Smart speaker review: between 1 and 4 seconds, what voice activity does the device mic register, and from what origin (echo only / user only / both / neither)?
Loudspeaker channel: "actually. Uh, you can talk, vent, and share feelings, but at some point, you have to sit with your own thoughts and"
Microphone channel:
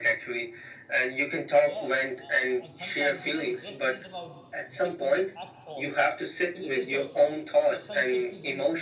both